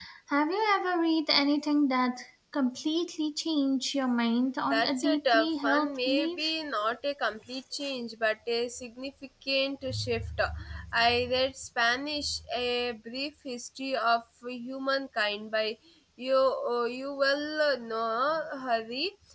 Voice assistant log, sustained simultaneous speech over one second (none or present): present